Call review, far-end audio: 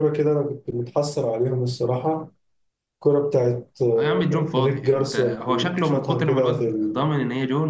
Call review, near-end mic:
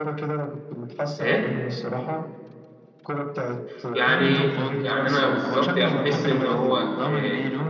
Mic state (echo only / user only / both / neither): both